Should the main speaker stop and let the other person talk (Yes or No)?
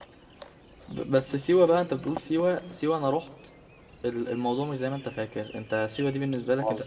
No